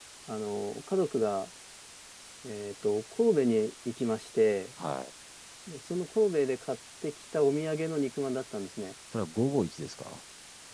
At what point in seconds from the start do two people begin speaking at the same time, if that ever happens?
none

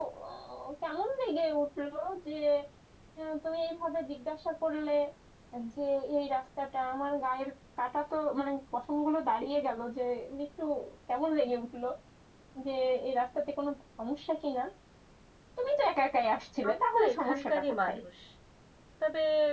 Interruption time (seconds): 16.6 s

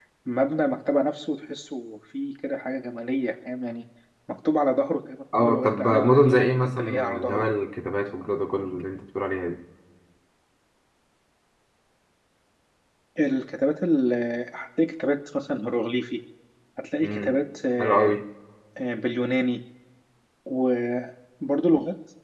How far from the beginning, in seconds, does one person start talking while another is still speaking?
5.3 s

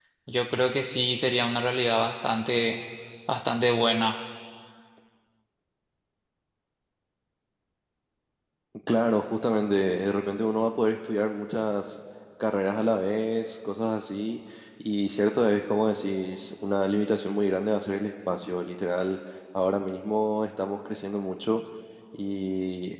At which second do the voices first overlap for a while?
none

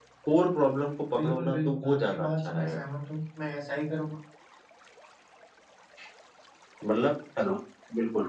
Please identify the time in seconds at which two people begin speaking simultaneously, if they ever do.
1.1 s

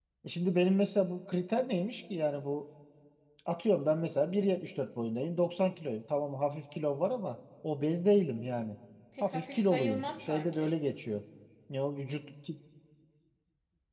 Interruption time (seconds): 9.2 s

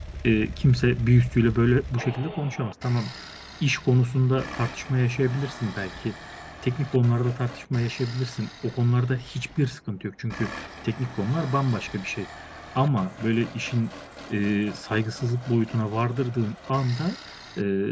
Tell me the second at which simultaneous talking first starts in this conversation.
none

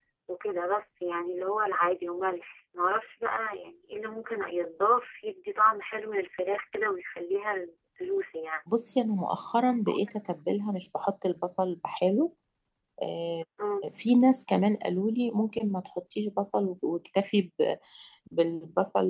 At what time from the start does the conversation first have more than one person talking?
none

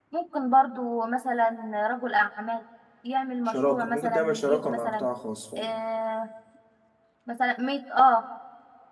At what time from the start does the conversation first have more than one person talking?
3.5 s

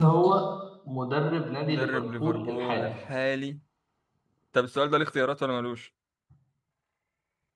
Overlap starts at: 1.6 s

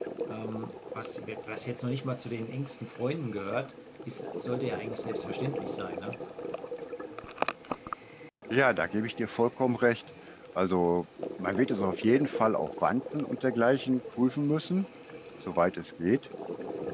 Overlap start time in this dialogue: none

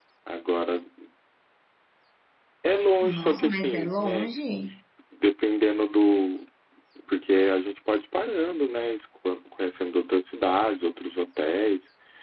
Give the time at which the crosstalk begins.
3.0 s

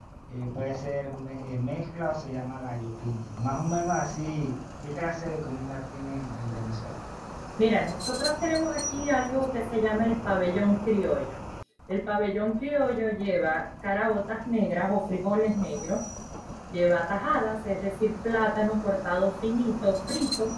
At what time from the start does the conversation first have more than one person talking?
none

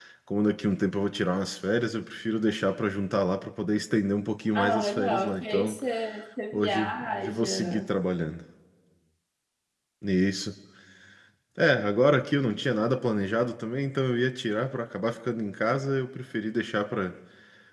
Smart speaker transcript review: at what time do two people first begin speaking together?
4.5 s

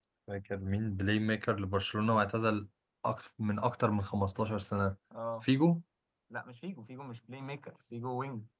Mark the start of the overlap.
none

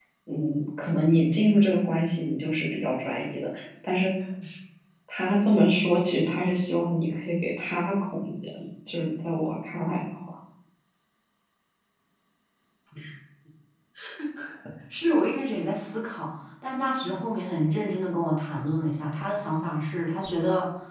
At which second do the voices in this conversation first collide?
none

